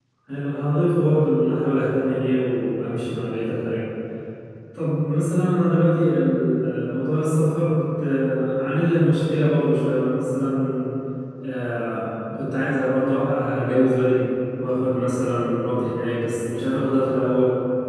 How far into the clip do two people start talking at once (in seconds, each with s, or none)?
none